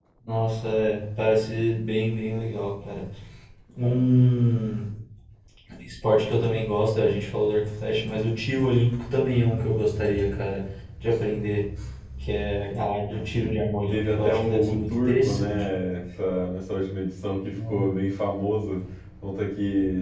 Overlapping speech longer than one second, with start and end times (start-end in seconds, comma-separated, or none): 13.9-15.6